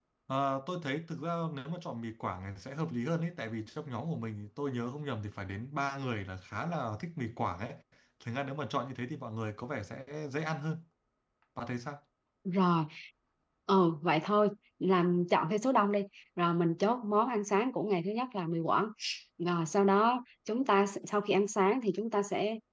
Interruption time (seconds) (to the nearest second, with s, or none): none